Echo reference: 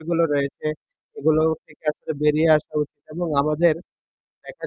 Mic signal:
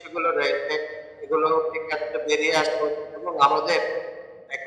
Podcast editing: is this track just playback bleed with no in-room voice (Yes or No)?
Yes